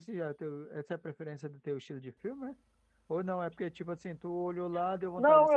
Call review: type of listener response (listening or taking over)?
taking over